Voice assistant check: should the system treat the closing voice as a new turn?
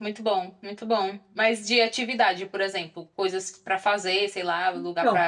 Yes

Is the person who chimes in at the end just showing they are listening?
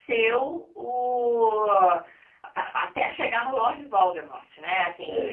Yes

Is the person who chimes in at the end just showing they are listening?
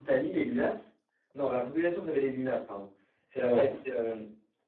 Yes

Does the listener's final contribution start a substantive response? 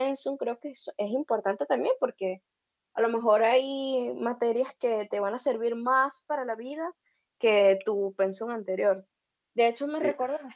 No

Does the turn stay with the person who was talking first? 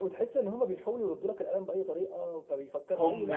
No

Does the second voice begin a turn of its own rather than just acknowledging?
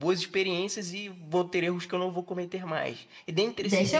Yes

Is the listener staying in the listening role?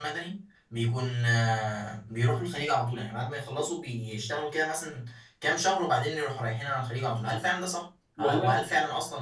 Yes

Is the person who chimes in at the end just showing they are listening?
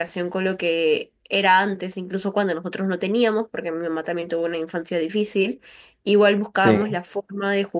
Yes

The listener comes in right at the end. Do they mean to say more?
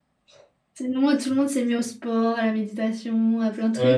Yes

